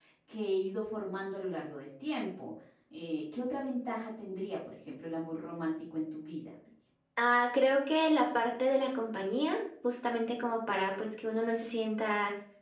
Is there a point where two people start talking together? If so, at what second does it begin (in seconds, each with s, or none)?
none